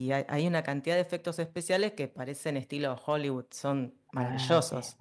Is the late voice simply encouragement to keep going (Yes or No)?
No